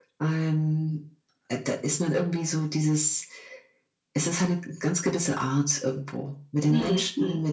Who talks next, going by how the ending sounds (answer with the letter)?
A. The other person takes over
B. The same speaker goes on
B